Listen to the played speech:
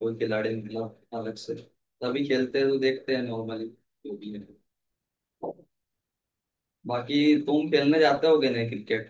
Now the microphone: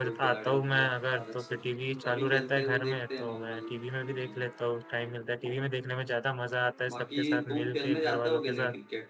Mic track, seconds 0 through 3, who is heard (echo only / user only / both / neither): both